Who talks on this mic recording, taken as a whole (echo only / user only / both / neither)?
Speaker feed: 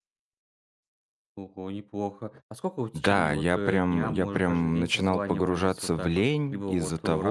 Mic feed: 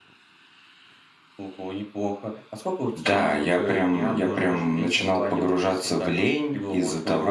echo only